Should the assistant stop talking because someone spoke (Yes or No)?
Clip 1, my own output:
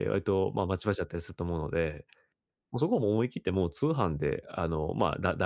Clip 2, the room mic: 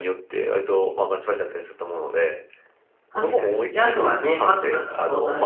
Yes